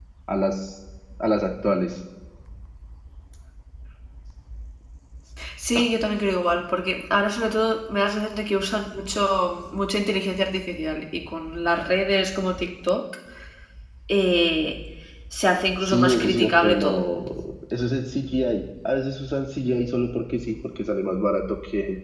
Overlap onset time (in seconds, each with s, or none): 15.8 s